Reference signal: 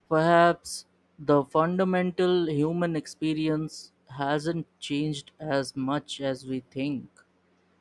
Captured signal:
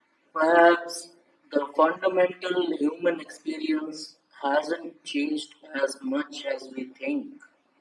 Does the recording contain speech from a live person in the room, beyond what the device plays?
No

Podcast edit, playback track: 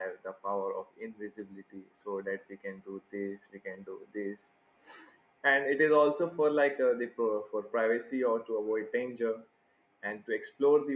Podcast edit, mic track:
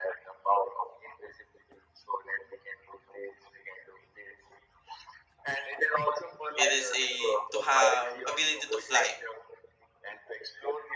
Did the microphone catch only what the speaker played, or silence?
No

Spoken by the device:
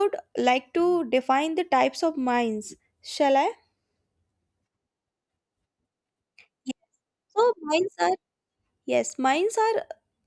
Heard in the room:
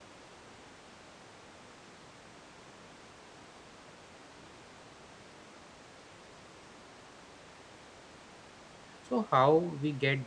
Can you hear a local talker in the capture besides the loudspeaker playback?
Yes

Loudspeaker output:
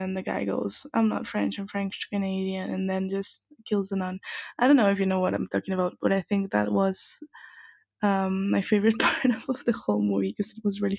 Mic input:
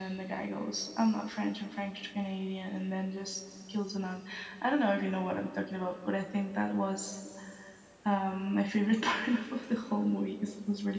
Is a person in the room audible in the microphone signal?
No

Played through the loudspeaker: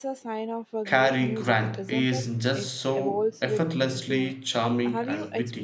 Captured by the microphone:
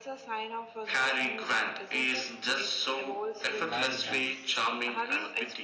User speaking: Yes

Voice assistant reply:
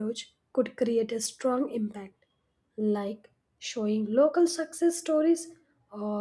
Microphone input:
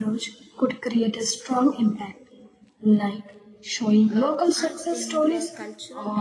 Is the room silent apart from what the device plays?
No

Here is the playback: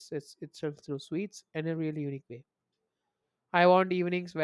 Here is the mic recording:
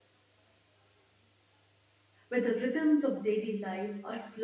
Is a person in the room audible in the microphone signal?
Yes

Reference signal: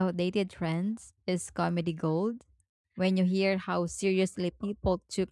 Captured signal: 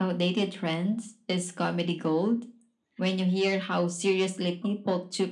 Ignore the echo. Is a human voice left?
No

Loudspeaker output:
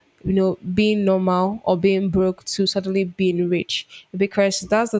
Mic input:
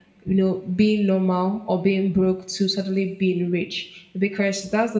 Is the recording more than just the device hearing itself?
No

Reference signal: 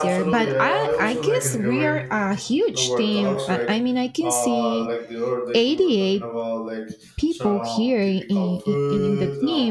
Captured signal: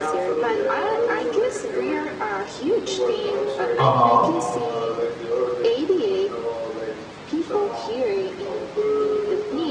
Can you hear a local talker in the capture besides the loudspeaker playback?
Yes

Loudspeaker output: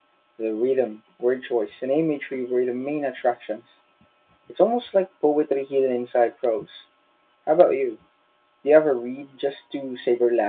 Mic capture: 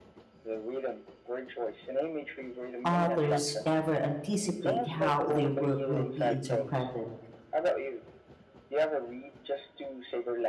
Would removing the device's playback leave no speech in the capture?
No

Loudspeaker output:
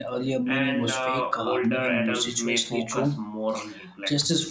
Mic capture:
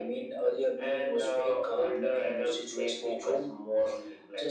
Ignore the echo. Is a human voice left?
No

